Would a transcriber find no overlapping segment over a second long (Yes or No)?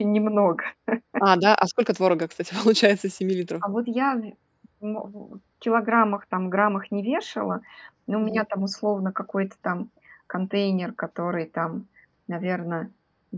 Yes